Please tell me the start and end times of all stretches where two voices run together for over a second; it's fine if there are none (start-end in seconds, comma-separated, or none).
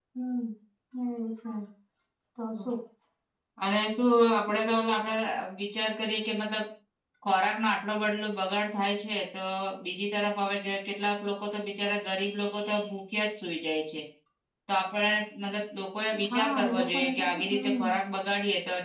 16.3-17.9